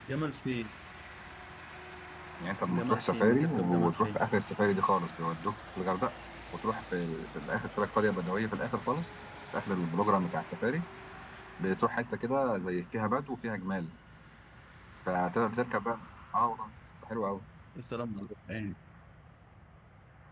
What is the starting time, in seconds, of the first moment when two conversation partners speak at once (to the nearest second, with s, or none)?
3 s